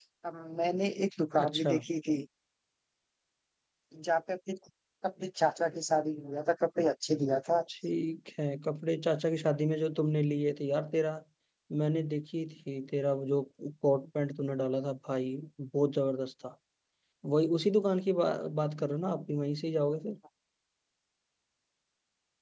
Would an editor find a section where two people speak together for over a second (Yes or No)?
No